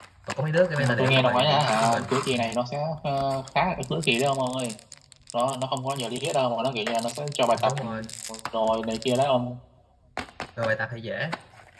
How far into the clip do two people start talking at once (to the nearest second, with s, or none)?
1 s